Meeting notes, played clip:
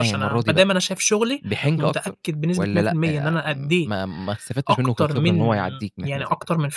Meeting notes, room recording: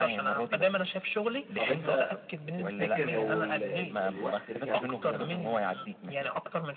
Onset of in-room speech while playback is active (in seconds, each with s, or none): 1.6 s